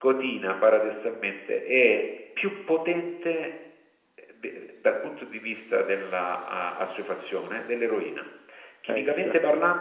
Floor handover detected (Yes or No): No